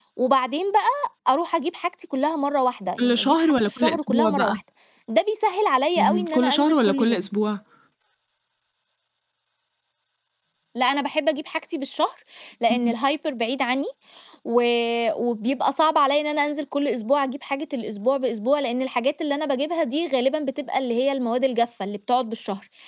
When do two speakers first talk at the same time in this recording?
3.0 s

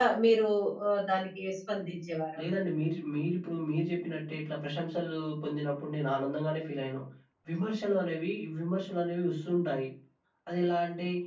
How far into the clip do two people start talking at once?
none

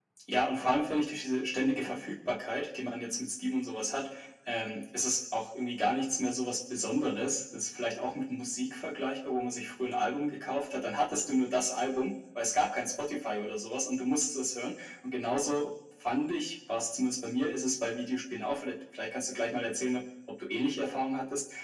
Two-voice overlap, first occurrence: none

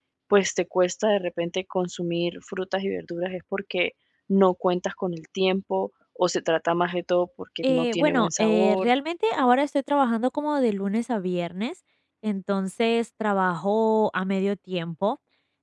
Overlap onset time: 7.6 s

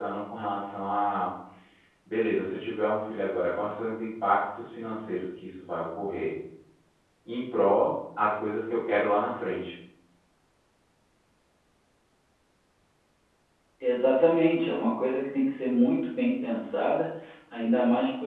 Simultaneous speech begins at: none

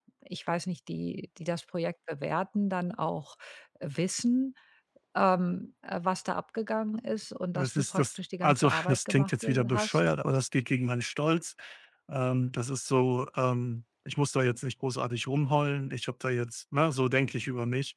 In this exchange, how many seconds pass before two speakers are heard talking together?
7.5 s

